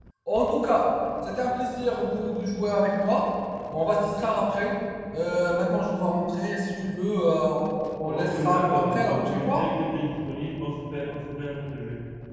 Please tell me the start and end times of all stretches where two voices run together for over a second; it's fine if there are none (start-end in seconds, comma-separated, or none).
8.0-9.6